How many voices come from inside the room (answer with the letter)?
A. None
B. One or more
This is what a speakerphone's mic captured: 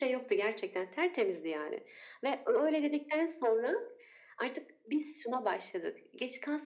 A